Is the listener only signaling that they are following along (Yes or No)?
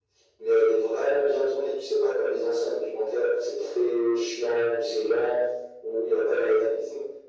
Yes